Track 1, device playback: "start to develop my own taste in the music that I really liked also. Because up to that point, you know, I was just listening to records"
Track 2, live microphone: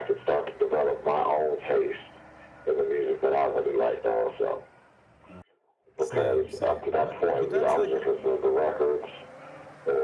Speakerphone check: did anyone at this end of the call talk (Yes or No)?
Yes